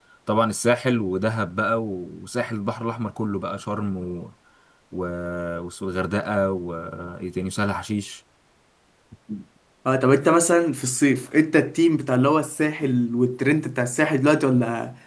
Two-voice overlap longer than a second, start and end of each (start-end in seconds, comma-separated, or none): none